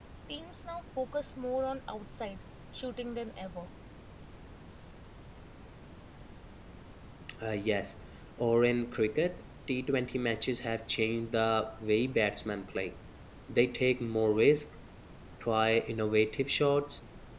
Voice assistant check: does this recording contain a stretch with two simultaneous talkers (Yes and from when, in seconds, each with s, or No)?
No